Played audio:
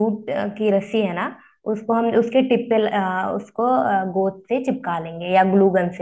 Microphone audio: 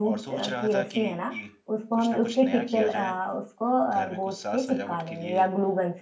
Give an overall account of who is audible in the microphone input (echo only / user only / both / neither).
both